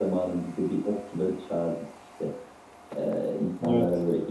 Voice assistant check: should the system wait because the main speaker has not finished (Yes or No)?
Yes